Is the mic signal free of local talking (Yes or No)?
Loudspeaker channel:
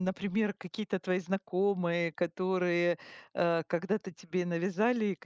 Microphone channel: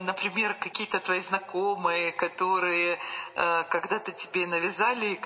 Yes